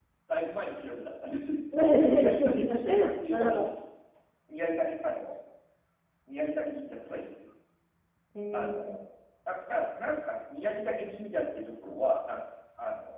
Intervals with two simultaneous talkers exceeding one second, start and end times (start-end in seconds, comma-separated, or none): 2.0-3.7